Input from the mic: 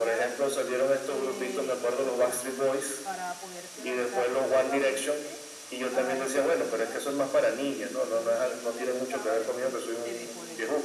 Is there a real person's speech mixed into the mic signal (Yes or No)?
Yes